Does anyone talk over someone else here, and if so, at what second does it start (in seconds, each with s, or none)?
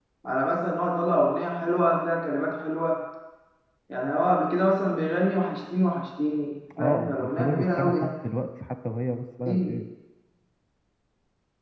6.7 s